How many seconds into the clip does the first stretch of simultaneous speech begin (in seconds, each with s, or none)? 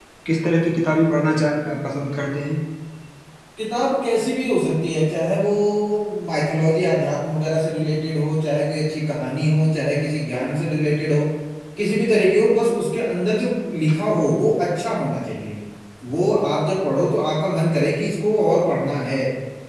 none